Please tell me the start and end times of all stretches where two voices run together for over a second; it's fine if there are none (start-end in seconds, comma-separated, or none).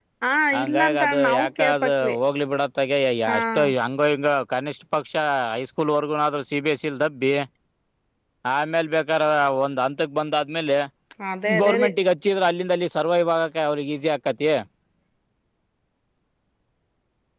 0.6-2.1